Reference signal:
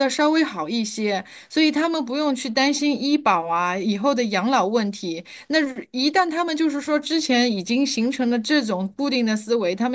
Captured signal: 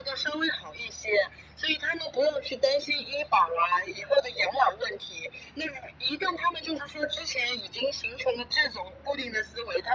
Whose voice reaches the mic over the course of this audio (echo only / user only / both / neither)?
echo only